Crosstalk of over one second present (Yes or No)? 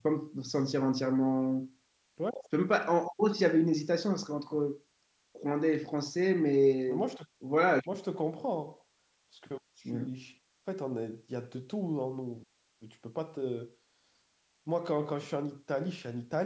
No